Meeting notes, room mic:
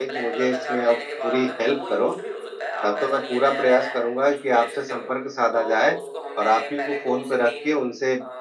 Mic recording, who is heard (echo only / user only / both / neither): both